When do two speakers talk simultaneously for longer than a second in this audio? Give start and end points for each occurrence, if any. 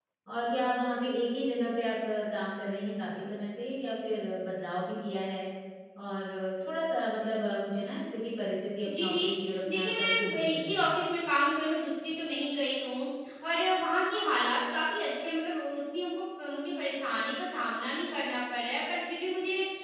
9.7-10.9

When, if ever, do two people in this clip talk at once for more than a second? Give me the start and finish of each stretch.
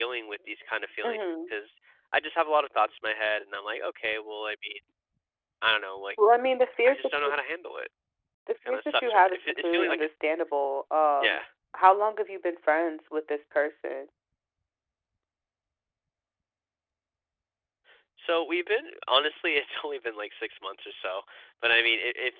8.7-10.1

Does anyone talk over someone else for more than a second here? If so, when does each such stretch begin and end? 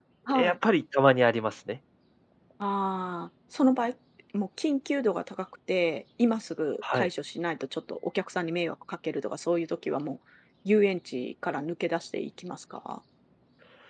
none

